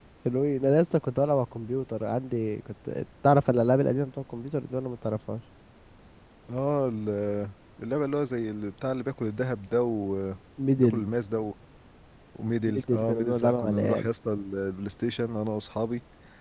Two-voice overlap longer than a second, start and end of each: 12.7-14.1

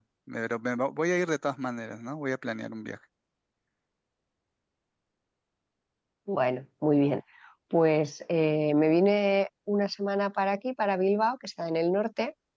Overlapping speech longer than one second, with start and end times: none

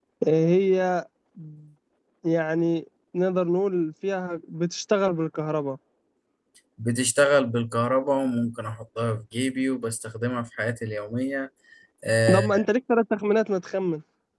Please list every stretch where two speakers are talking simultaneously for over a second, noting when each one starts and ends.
none

